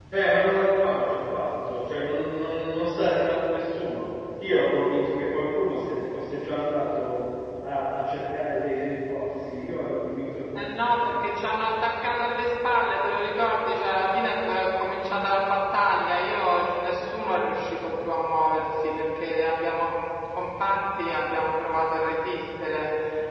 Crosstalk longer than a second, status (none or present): none